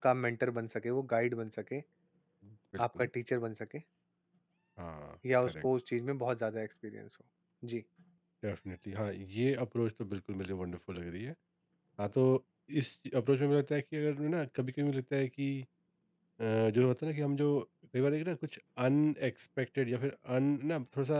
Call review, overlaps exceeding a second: none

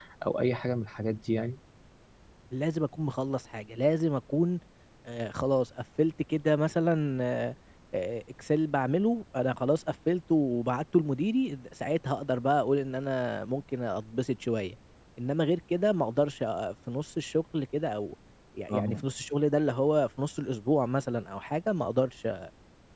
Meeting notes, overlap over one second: none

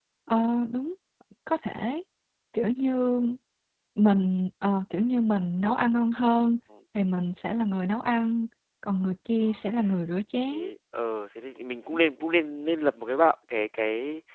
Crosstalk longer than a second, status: none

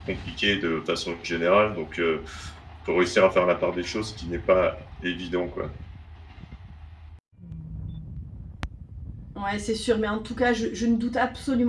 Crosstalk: none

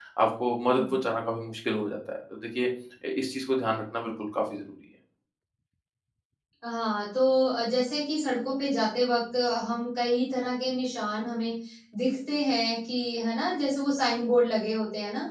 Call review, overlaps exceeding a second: none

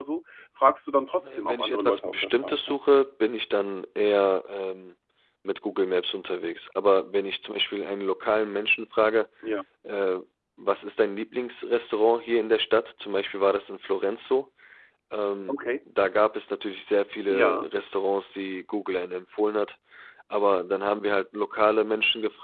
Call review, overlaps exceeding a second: present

